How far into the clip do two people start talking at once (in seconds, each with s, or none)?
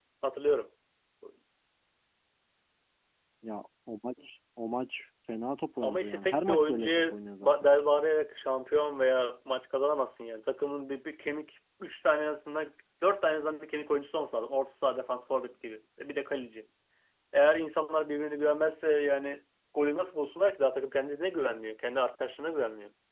5.8 s